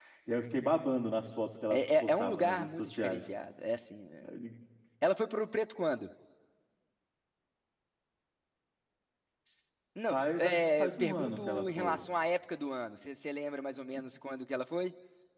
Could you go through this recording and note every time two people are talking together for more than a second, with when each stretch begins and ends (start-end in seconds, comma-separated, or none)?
1.7-3.2, 10.1-12.0